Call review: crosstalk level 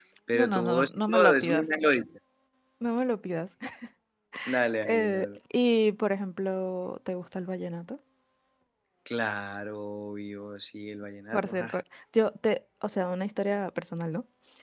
present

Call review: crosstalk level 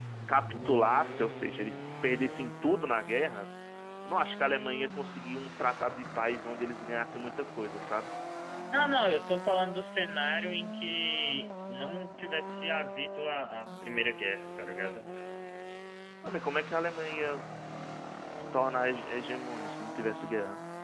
none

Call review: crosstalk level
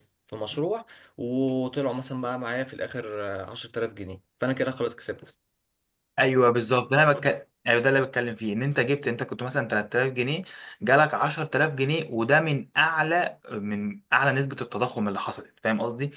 none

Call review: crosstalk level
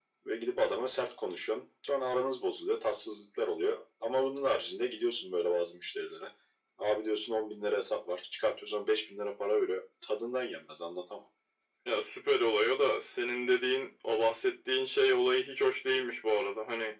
none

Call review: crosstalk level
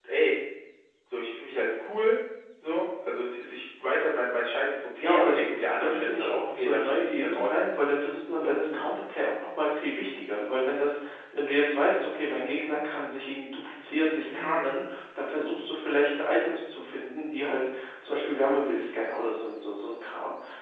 present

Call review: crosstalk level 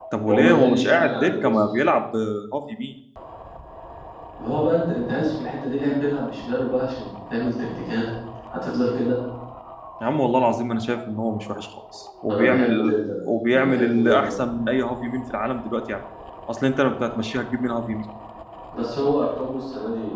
present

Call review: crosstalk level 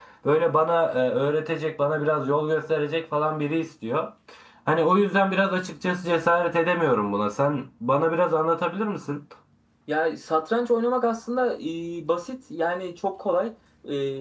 none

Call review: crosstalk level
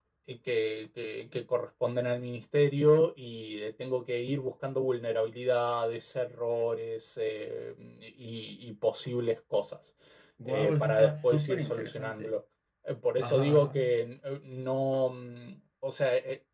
present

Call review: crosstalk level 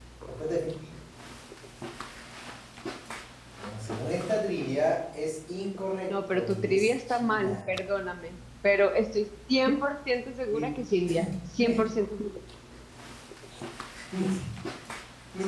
present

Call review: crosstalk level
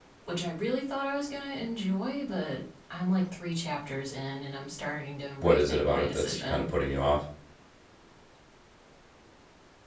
present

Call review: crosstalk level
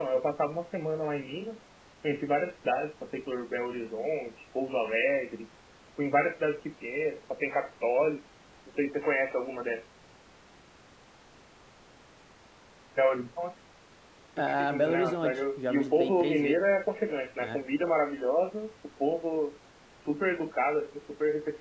present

